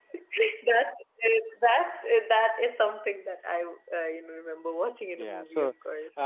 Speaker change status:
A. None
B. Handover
B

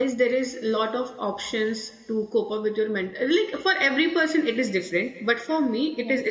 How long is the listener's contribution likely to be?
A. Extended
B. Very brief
B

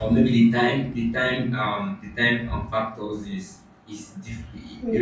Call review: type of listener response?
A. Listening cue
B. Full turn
A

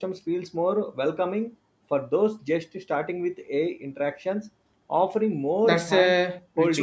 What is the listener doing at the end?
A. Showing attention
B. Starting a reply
B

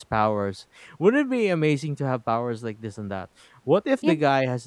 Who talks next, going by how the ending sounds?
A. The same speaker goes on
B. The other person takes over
A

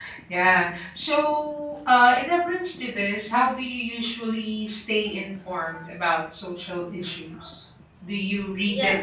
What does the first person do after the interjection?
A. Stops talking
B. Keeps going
B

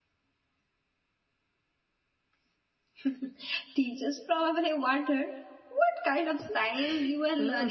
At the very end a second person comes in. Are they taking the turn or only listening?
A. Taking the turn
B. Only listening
A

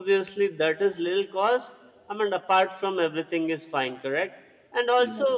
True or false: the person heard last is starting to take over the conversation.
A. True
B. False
B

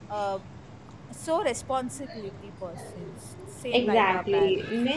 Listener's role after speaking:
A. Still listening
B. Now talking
B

